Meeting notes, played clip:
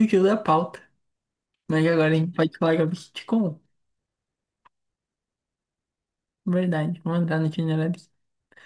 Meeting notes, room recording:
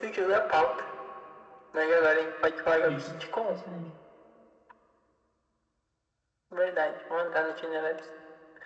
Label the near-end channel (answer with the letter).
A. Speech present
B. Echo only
A